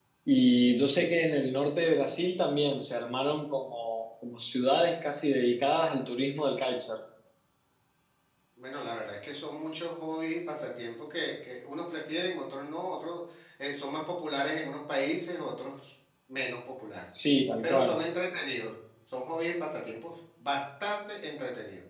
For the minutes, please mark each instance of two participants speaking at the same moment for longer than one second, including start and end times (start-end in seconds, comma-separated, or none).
none